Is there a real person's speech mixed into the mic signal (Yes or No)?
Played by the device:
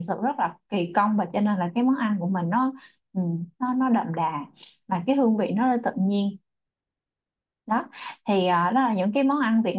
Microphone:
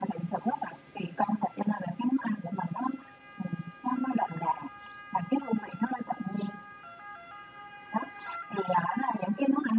No